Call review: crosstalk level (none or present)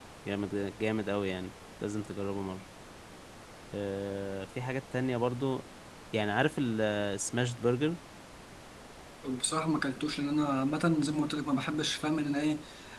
none